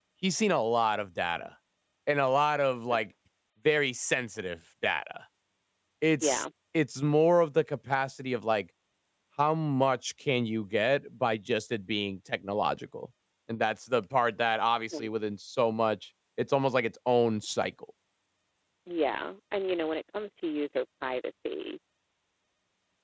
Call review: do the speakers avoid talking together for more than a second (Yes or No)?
Yes